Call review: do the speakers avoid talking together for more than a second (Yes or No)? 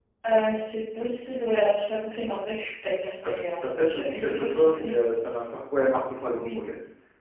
No